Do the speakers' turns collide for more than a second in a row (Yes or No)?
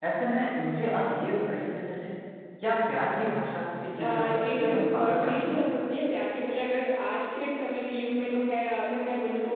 Yes